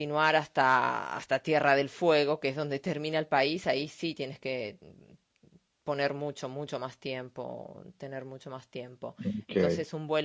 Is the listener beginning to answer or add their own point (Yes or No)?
No